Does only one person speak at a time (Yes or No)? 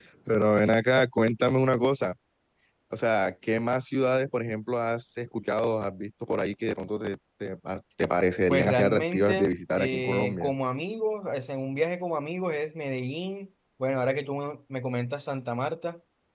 No